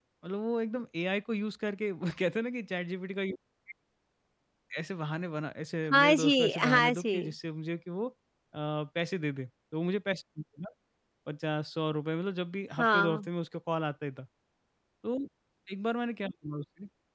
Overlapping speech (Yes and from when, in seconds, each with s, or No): Yes, from 5.9 s